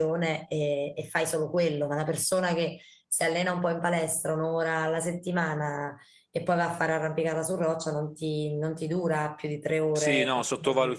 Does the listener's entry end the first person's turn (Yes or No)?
Yes